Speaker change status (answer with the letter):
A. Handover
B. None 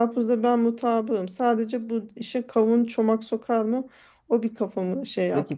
A